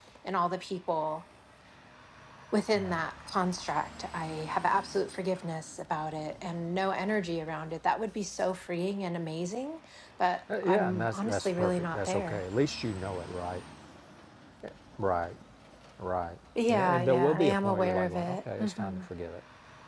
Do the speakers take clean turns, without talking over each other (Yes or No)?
No